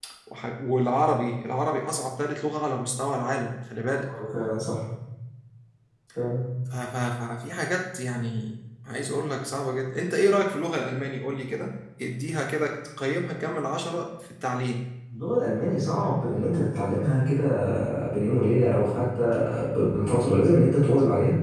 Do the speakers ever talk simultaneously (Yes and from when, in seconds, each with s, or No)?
No